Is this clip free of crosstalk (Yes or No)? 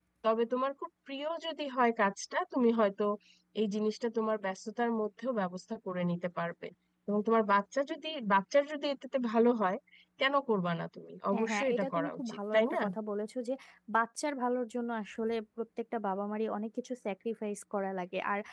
No